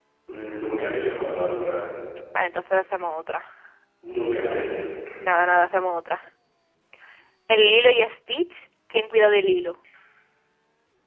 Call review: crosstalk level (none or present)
none